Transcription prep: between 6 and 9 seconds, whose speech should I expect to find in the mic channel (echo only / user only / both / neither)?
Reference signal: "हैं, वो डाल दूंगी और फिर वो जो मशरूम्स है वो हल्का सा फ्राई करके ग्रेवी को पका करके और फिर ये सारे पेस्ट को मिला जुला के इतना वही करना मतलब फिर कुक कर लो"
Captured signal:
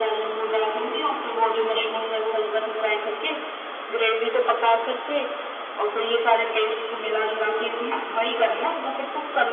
echo only